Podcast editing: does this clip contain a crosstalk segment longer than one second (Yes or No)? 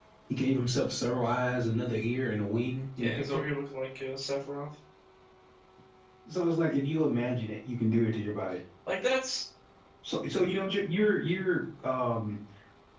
No